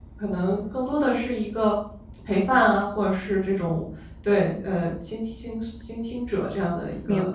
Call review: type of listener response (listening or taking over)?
taking over